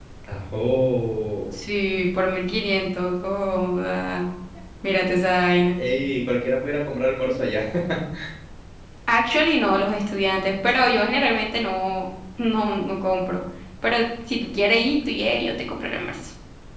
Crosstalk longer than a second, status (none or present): none